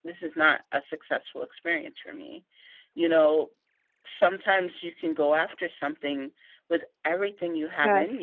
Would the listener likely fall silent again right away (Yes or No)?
Yes